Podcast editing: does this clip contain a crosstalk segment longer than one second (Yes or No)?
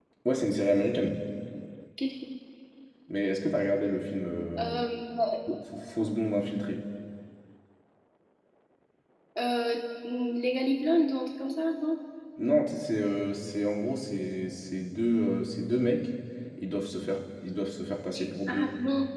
No